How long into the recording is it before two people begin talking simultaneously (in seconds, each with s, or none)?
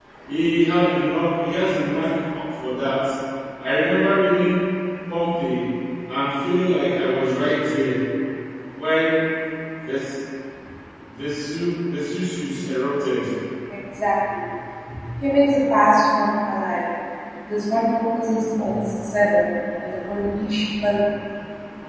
none